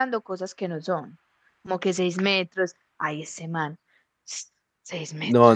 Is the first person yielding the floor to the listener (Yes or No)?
Yes